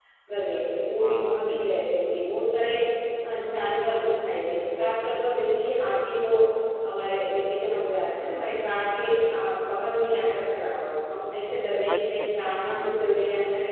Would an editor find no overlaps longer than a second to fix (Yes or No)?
No